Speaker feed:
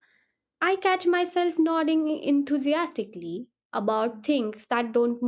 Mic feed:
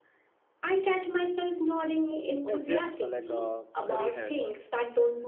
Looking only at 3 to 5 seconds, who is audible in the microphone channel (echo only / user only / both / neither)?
both